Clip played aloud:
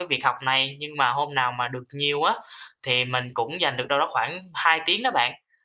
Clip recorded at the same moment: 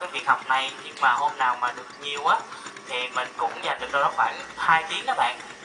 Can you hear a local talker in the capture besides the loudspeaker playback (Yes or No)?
No